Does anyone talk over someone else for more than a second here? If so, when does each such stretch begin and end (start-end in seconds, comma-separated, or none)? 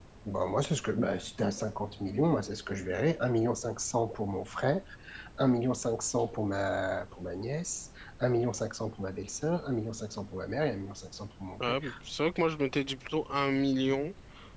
none